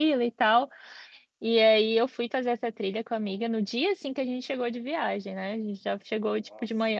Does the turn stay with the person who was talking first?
Yes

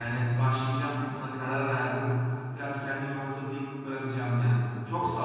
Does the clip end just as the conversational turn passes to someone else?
Yes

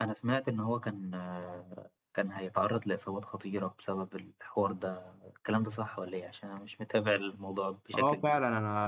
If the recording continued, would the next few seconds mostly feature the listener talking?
Yes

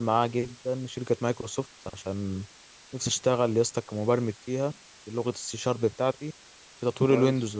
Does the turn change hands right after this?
No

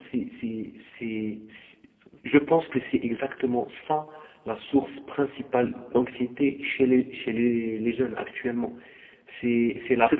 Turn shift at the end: Yes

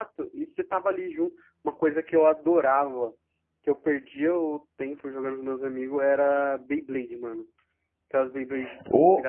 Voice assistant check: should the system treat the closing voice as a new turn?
Yes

